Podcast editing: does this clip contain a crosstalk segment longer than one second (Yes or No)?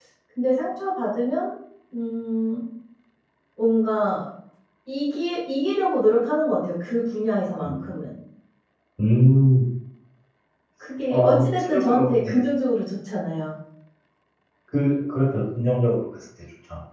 Yes